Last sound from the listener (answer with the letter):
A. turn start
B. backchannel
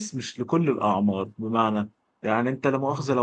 B